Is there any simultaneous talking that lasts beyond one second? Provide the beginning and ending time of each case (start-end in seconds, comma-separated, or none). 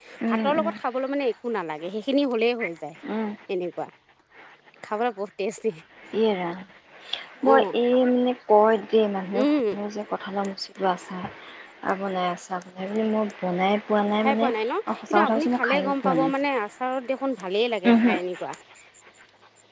15.1-16.3